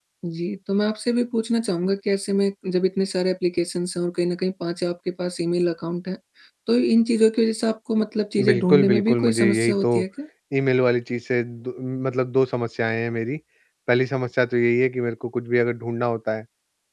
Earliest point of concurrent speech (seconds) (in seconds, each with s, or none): 8.4 s